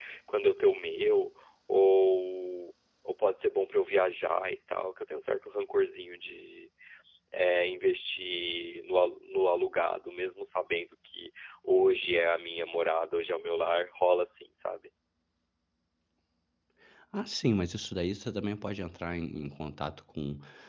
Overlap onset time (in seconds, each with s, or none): none